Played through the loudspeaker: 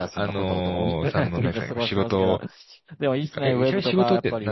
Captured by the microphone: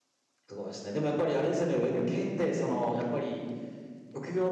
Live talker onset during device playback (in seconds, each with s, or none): 0.5 s